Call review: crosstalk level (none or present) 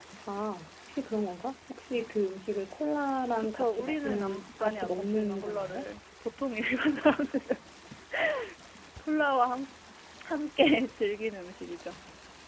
present